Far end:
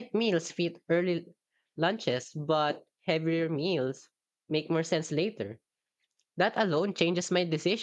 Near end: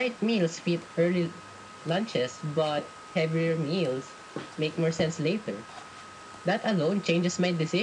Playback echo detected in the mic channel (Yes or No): Yes